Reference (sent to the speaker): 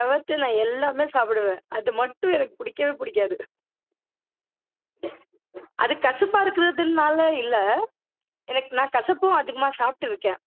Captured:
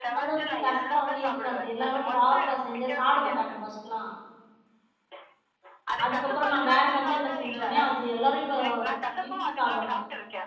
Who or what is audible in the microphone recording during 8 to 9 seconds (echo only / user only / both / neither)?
both